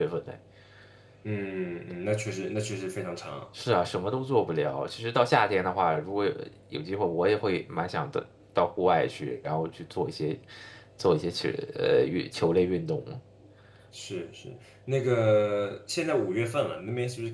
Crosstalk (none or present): none